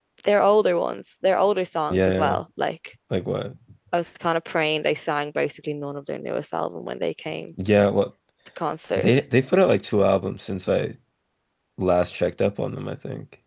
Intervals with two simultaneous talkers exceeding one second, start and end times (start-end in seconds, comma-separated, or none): none